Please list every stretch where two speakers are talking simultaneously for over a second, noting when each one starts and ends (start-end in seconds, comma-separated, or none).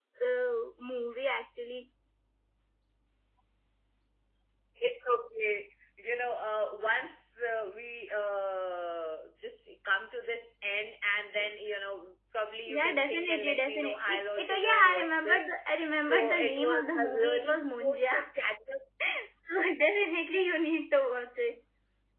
12.7-15.4, 16.0-18.0